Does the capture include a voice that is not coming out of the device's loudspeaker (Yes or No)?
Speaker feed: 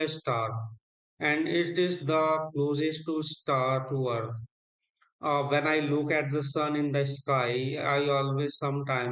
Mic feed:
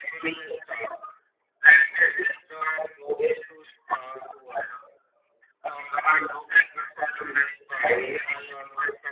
No